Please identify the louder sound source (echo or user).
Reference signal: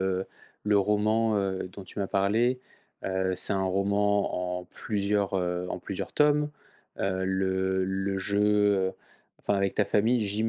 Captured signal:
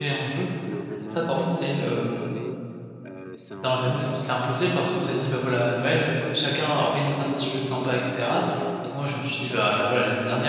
user